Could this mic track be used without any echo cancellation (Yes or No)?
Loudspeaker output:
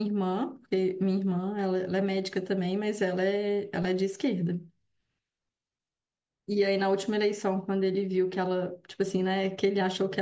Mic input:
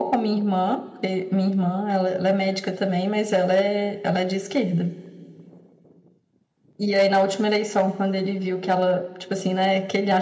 No